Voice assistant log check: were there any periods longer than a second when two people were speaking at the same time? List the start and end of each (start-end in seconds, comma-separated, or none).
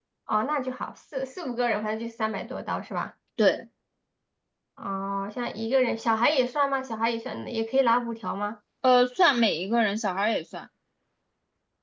none